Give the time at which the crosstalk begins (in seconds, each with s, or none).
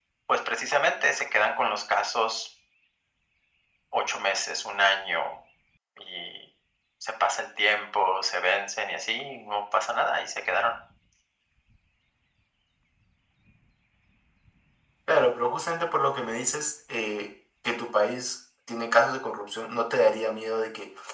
none